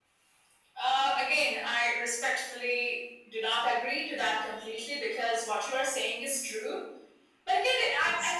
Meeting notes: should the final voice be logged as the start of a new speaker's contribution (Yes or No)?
Yes